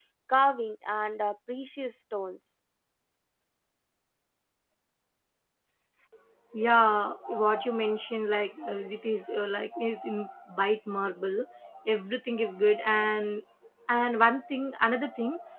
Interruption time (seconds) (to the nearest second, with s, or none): none